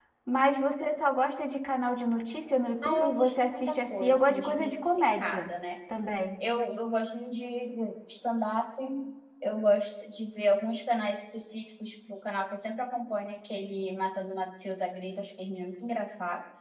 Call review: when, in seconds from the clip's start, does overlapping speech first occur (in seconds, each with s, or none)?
2.8 s